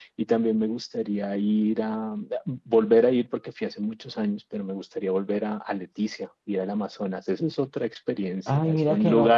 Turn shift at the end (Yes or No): Yes